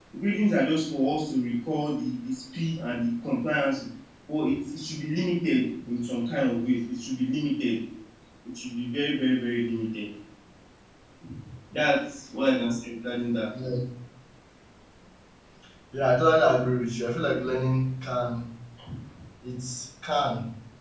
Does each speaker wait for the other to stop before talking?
Yes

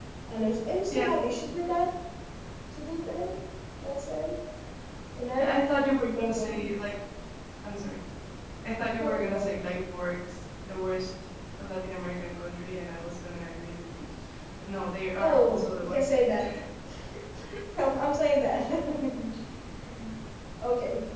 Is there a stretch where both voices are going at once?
Yes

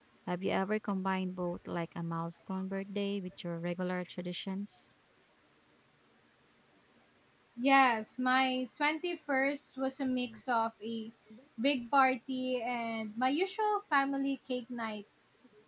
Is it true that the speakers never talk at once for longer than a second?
Yes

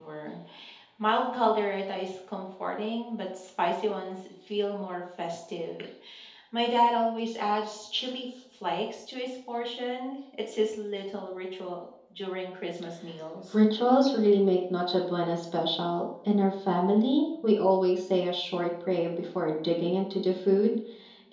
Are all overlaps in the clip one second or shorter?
Yes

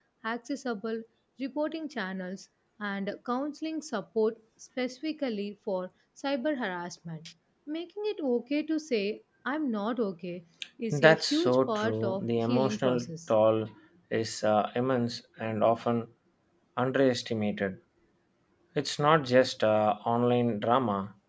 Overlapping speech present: Yes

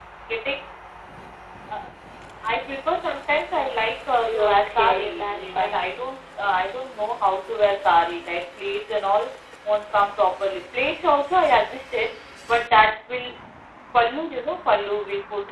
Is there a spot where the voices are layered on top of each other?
Yes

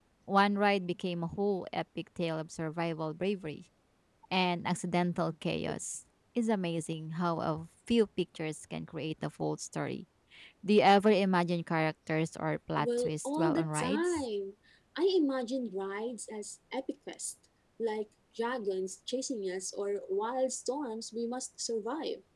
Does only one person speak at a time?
No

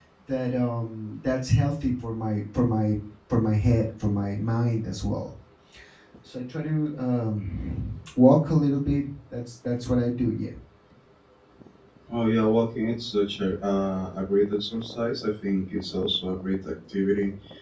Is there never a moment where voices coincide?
Yes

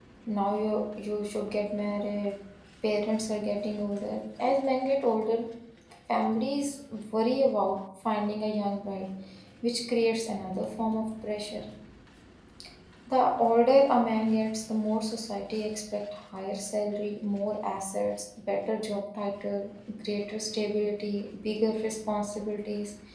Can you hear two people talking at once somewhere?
No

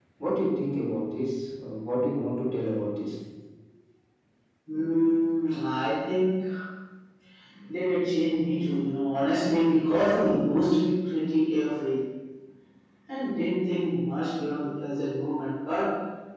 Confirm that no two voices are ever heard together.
Yes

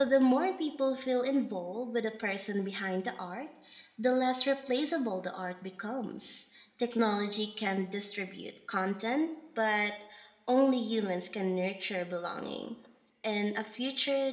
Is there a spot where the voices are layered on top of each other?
No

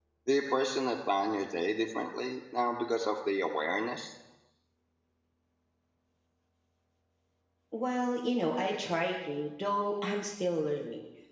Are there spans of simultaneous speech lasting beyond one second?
No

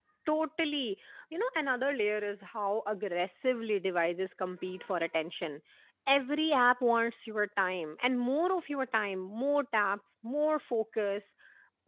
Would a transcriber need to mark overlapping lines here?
No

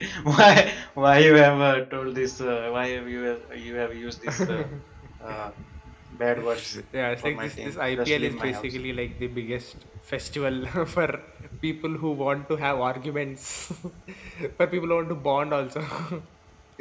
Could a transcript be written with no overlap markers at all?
No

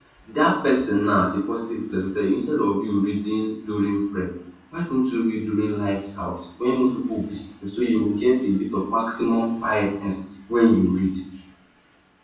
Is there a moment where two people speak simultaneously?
No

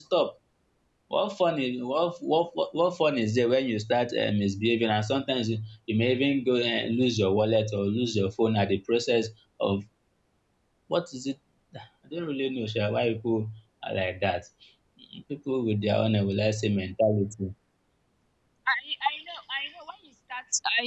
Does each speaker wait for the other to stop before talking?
Yes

